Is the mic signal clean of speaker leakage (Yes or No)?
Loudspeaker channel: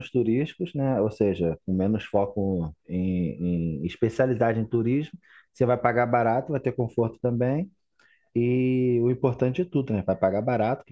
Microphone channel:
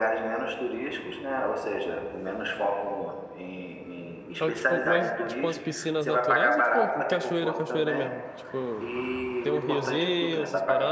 No